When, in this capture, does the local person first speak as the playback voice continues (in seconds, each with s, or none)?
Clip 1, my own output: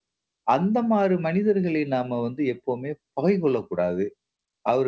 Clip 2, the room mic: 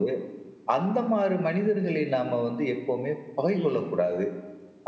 3.5 s